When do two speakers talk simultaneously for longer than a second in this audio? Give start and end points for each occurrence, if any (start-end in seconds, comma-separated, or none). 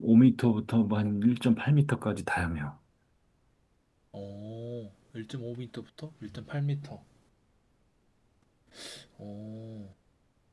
none